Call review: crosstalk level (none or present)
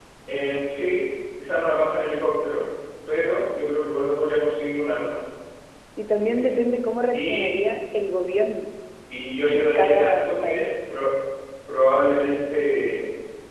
present